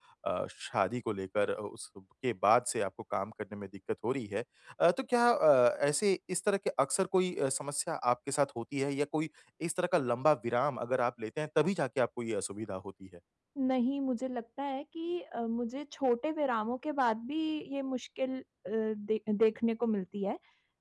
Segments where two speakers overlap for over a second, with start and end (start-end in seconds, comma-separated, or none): none